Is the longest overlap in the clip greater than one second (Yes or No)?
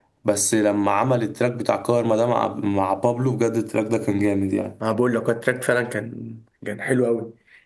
No